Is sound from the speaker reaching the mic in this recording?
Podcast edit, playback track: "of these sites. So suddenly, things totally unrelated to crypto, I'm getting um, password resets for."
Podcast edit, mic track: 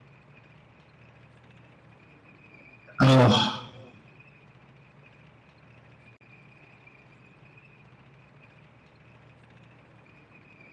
No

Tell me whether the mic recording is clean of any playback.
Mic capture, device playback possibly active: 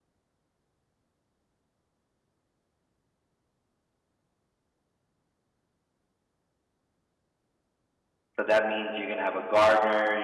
Yes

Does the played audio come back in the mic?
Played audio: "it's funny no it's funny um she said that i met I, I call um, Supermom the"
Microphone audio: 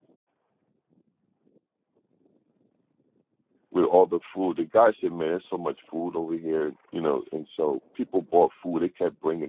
No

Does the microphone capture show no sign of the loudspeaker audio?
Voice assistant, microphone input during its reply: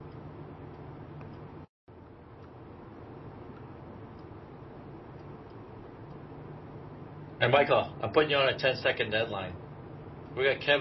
Yes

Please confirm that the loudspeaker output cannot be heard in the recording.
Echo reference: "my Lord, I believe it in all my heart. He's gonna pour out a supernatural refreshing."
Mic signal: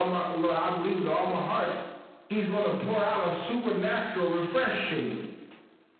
No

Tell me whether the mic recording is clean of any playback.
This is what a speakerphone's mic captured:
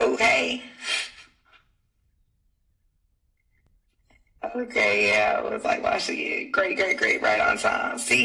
No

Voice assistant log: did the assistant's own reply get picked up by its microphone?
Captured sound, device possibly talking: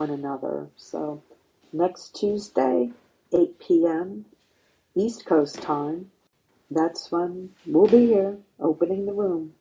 No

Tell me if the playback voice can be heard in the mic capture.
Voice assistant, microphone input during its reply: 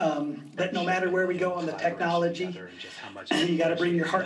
Yes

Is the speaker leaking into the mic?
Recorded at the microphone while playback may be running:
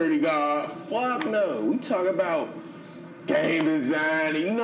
Yes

